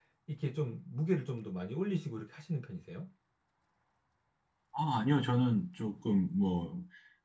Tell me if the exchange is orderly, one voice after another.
Yes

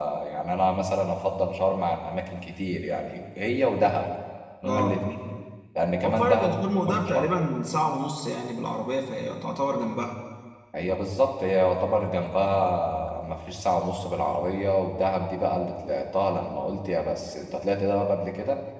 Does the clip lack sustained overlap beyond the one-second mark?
No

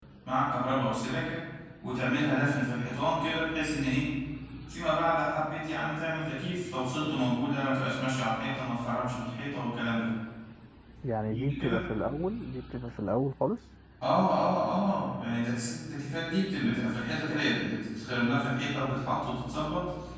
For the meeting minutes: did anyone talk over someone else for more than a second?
No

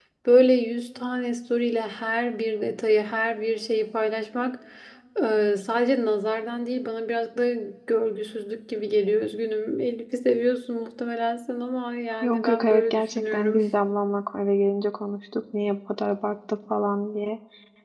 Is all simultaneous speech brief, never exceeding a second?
No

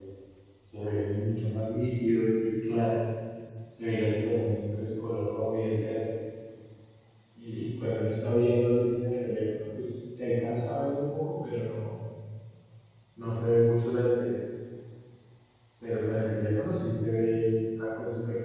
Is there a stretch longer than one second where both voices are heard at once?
No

